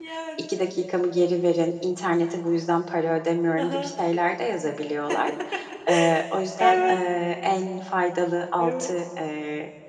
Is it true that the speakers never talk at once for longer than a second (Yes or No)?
Yes